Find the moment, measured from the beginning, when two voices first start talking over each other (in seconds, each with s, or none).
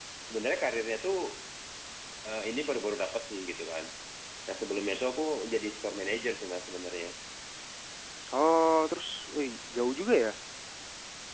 none